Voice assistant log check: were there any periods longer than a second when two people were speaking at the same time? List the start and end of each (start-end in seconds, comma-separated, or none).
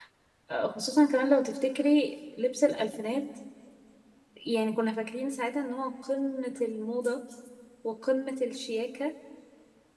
none